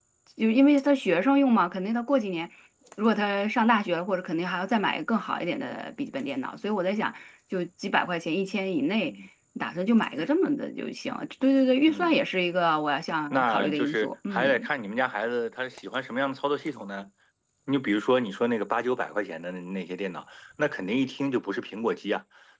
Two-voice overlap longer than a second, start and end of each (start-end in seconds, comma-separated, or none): 13.3-14.7